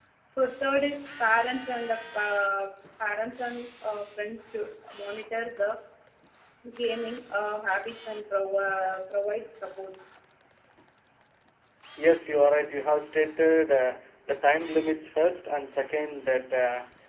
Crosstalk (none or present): none